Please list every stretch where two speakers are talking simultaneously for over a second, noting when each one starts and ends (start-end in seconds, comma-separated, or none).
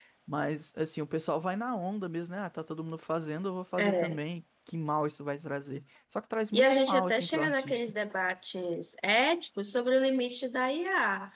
6.5-7.8